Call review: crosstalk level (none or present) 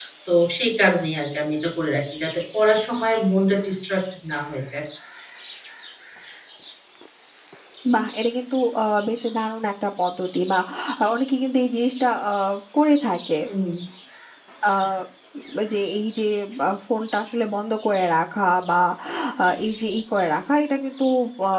none